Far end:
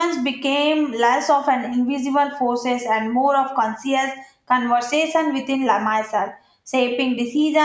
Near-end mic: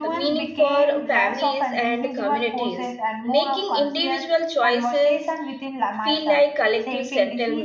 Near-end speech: present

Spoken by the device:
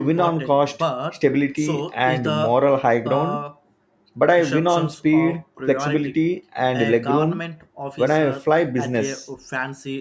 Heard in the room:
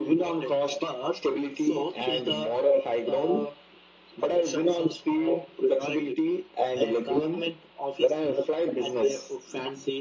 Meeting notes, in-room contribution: none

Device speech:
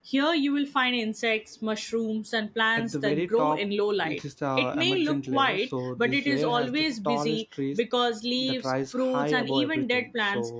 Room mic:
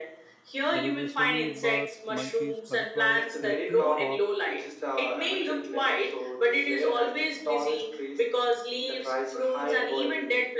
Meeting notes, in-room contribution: present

